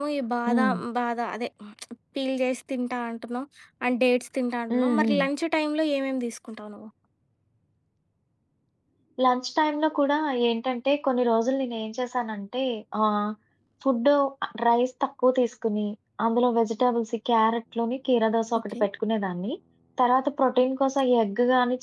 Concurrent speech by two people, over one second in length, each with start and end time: none

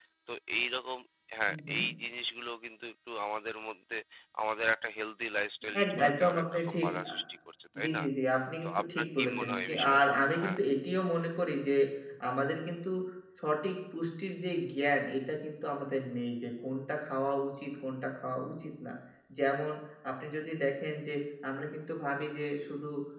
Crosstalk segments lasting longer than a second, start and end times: 5.8-7.1, 8.6-10.0

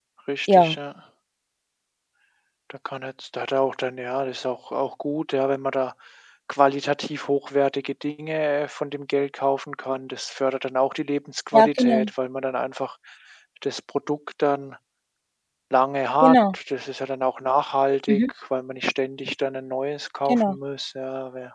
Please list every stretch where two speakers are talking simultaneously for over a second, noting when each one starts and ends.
none

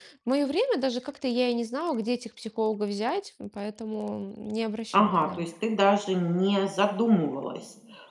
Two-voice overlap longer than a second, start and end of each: none

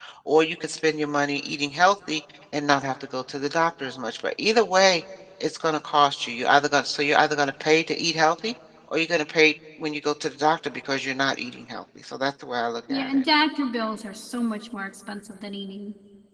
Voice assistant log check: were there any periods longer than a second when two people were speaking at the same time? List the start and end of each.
none

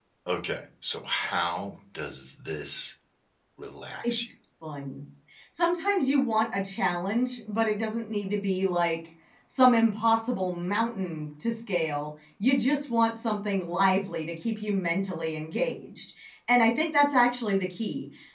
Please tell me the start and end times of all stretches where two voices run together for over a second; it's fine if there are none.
none

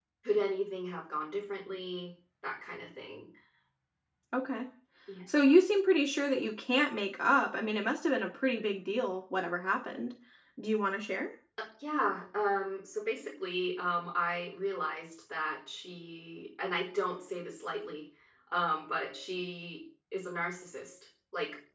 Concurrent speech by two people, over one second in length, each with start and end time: none

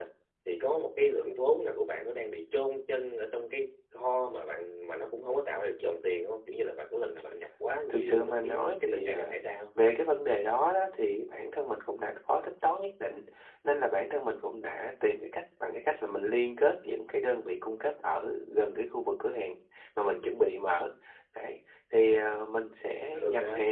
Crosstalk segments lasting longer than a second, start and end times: 7.9-9.3

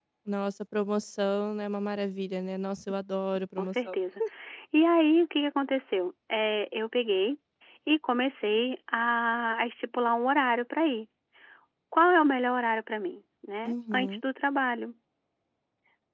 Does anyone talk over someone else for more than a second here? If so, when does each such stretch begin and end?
none

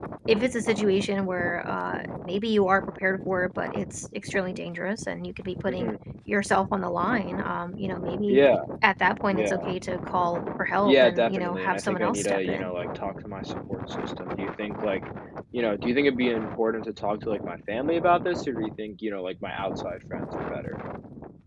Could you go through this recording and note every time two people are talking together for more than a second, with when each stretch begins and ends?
10.8-12.7

